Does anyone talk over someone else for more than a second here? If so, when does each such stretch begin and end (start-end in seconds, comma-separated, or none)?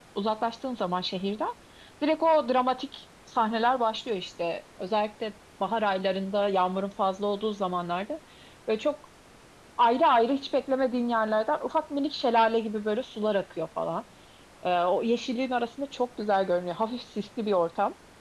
none